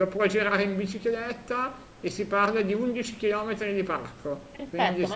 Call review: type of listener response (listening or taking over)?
taking over